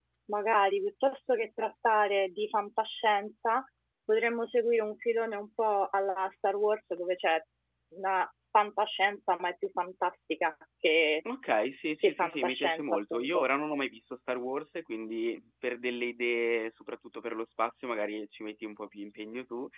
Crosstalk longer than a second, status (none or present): present